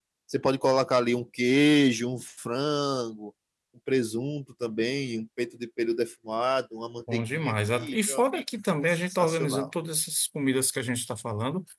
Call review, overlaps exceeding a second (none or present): present